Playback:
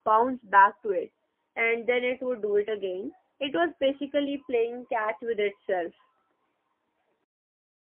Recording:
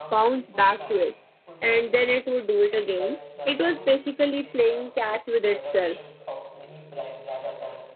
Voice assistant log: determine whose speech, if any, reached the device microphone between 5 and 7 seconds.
both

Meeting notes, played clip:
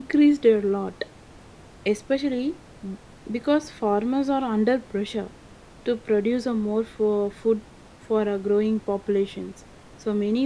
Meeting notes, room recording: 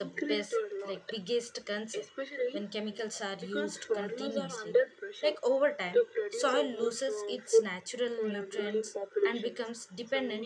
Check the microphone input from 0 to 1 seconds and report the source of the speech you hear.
both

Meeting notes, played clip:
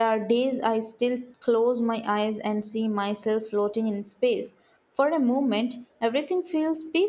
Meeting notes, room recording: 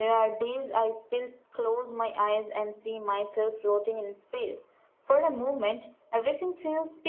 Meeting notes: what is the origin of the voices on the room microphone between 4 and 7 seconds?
echo only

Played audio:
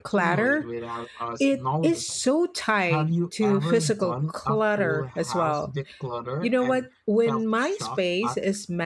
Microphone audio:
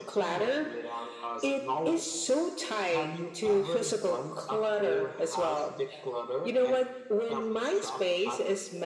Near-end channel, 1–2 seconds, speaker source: echo only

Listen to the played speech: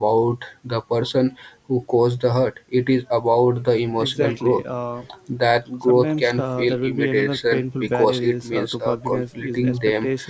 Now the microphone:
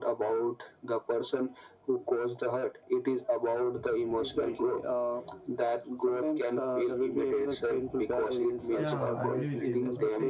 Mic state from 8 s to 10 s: both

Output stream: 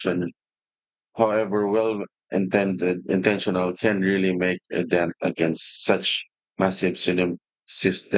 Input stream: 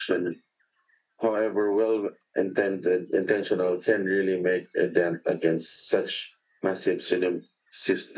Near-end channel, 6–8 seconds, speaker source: echo only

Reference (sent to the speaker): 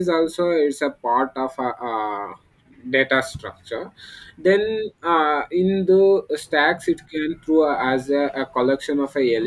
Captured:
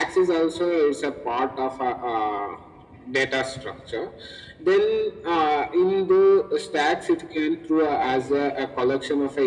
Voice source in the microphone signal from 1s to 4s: echo only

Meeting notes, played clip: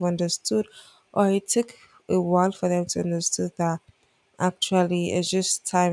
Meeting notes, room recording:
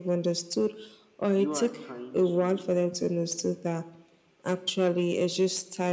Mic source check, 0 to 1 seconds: echo only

